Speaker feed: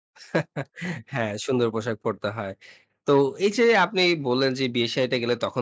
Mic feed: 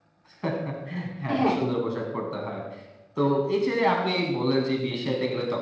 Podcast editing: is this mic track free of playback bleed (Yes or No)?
No